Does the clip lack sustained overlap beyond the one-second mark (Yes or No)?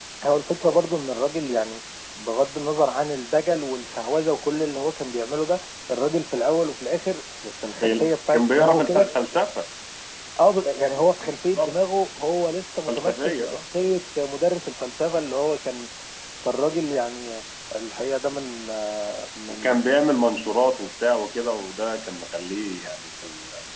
No